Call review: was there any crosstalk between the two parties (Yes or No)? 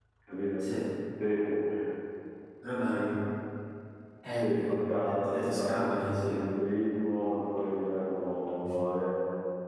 Yes